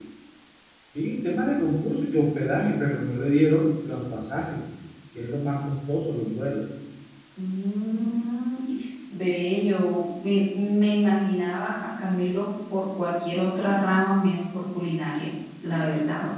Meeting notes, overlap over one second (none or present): none